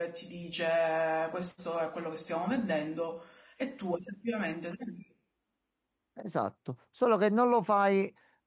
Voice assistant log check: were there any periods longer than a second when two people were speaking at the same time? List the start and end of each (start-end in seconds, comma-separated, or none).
none